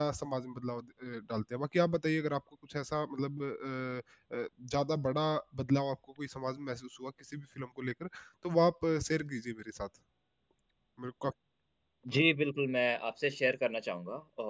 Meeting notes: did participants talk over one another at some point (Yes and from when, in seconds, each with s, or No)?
No